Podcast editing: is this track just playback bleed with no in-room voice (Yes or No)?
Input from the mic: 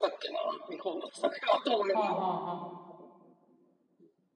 No